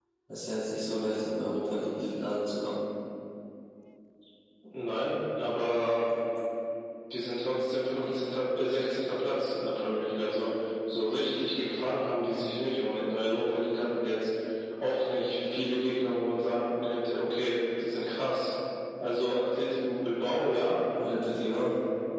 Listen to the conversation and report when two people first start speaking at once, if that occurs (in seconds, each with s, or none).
none